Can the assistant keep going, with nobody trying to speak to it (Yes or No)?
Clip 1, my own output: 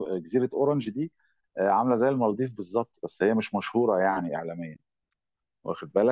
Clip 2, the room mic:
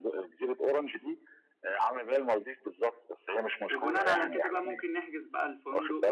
No